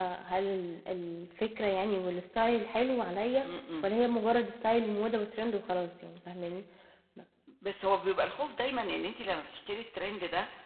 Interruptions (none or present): none